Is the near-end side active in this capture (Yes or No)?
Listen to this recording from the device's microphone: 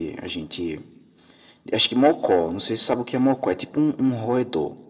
No